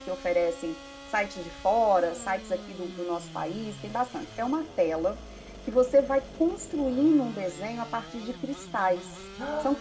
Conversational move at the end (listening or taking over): listening